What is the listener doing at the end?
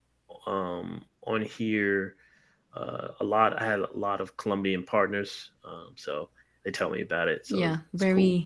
taking over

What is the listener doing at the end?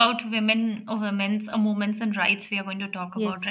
taking over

